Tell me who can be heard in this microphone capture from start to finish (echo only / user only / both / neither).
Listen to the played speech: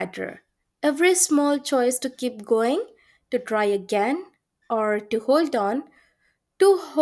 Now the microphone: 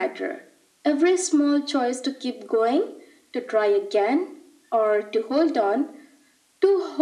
echo only